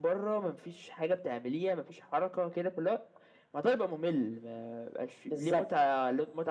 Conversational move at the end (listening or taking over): listening